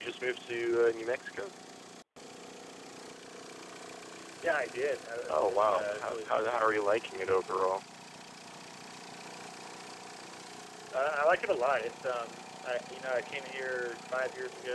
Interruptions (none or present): present